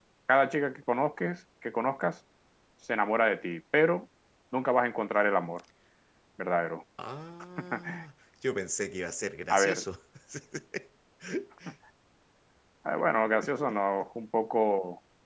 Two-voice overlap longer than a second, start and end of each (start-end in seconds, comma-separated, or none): none